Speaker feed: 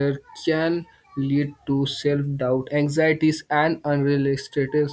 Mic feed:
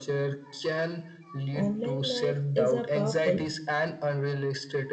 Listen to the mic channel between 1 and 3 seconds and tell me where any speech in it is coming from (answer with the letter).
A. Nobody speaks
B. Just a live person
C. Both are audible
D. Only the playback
C